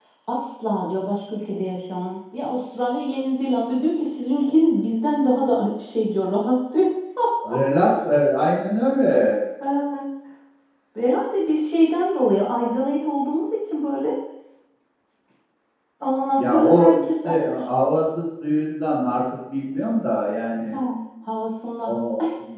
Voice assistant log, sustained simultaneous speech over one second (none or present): present